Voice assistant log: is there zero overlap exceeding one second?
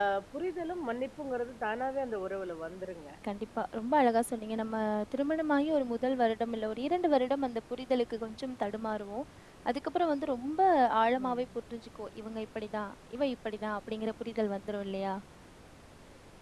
Yes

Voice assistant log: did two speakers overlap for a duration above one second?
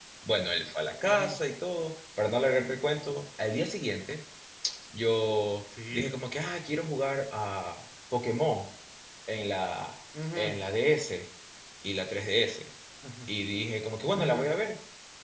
No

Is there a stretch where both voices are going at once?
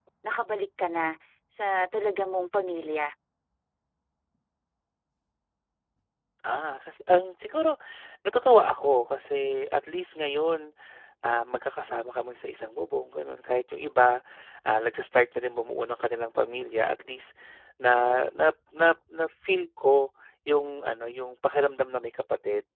No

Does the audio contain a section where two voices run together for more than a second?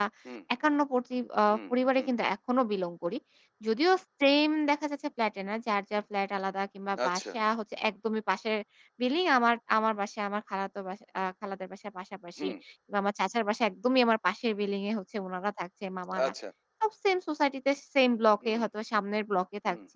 No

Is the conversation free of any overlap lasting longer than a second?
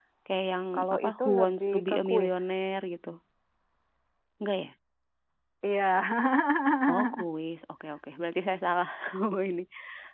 No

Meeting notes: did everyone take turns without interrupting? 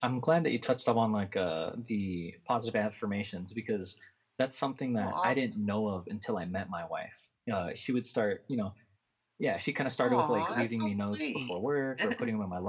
No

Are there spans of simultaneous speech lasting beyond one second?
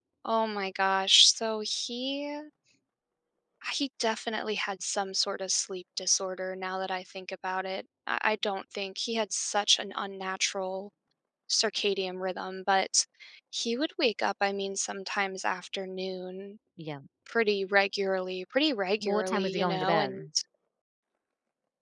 Yes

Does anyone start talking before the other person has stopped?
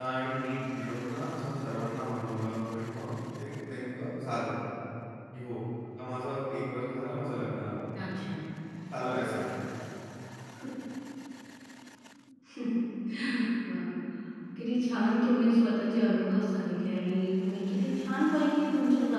No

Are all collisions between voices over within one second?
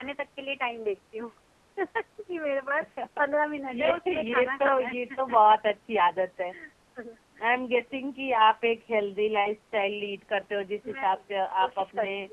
No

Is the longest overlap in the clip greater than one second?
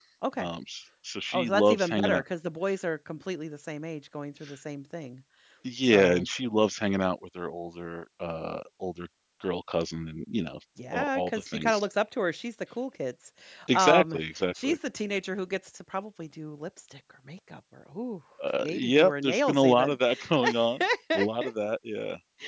Yes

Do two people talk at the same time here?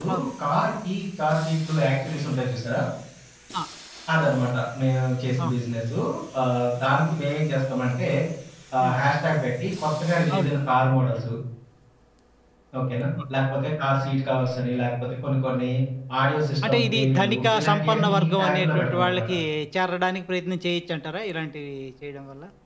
Yes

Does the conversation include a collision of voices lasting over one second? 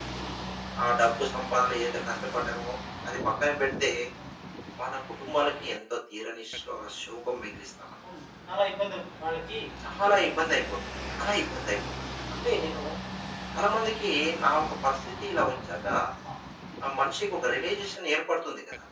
No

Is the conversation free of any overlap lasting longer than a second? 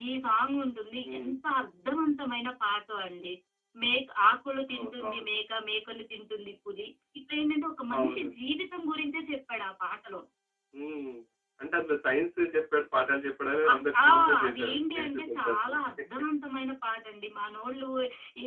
No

